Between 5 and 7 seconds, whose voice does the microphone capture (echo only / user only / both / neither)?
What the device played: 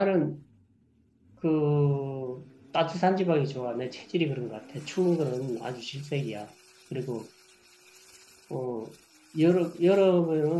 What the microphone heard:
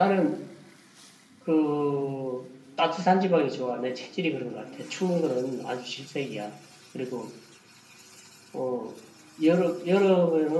echo only